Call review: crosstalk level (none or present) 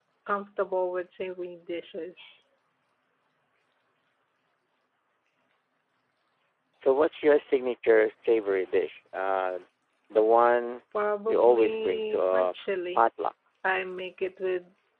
present